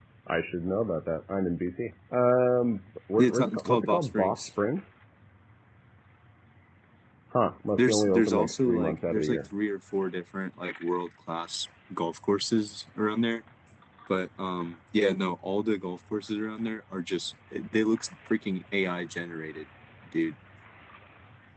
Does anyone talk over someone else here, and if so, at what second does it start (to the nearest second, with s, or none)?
3 s